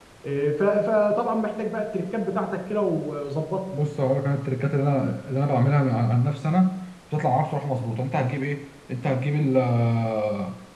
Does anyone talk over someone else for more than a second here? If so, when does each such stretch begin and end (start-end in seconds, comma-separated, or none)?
none